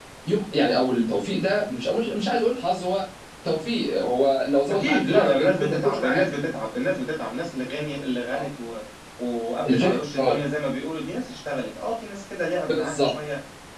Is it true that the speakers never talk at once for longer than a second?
No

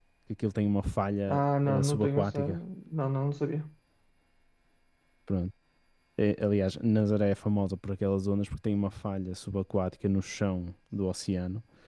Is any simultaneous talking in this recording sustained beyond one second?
Yes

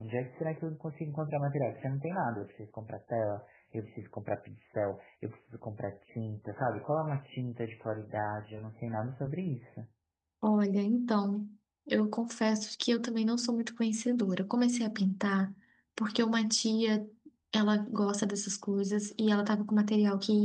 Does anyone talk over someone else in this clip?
No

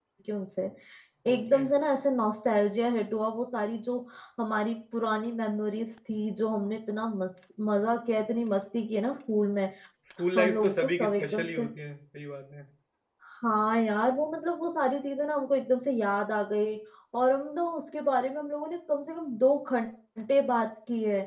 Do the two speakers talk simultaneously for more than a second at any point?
Yes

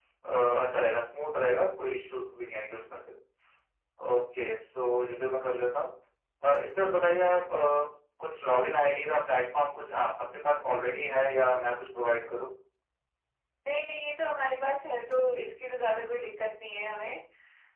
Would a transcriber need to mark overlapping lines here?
No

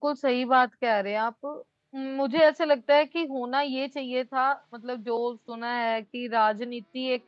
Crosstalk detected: No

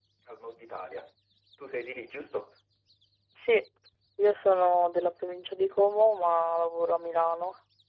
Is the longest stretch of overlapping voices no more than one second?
Yes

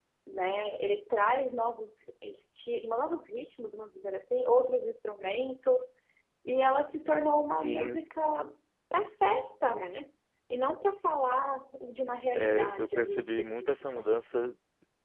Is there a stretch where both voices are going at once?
Yes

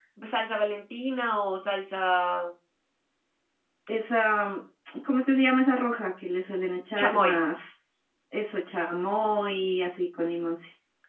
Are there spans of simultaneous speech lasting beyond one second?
No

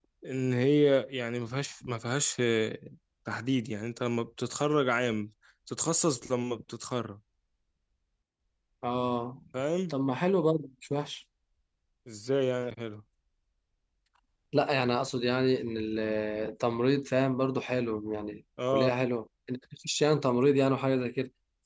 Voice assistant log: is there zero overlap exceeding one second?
Yes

